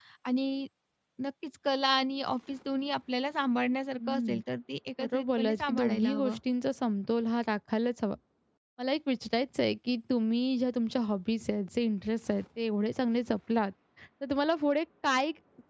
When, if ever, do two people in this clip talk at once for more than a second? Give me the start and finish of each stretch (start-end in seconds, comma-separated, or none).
5.0-6.4